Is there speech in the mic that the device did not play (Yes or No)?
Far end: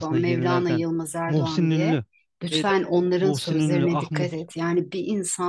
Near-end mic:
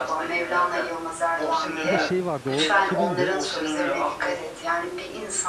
Yes